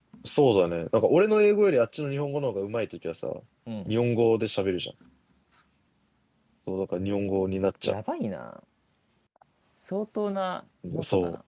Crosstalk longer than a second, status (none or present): none